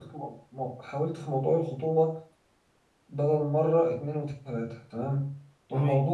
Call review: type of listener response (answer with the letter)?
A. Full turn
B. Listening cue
B